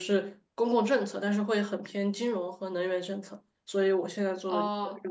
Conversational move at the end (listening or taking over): listening